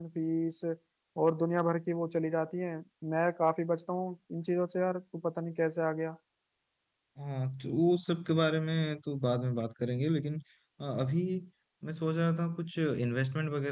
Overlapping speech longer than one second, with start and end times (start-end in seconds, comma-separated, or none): none